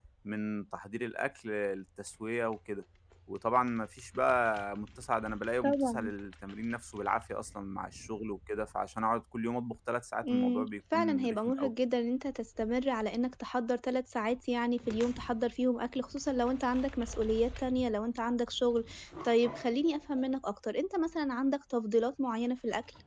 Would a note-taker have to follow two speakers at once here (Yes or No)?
Yes